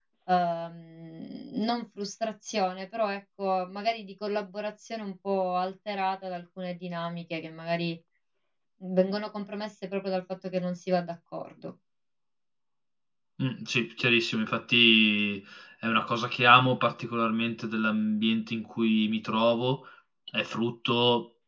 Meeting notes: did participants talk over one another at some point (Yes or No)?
No